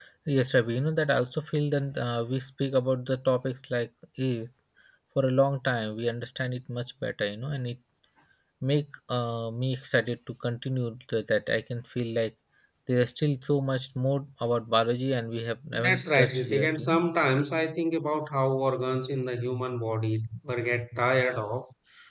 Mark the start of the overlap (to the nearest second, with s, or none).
16 s